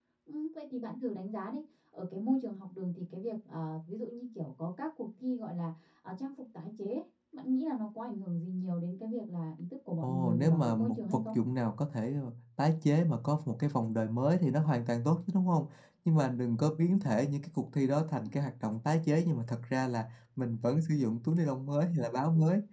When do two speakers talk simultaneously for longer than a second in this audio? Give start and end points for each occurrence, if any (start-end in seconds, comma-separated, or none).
10.0-11.4